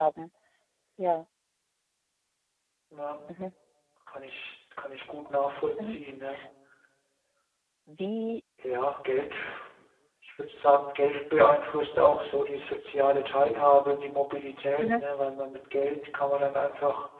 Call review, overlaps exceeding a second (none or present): none